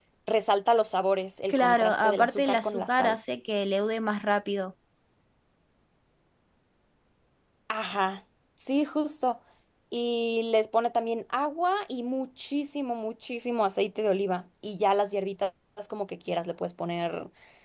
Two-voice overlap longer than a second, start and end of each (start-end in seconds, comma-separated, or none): 1.5-3.2